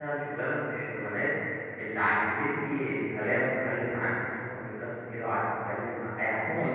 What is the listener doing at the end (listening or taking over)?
taking over